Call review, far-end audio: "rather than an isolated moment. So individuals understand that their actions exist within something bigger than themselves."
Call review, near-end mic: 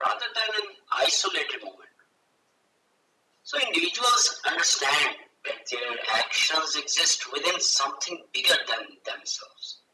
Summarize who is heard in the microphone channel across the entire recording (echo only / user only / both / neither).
echo only